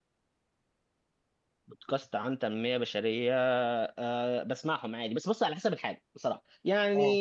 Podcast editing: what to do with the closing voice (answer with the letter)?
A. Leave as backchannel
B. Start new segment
A